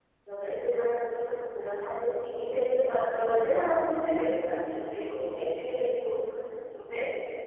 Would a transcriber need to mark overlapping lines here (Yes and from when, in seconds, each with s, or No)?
No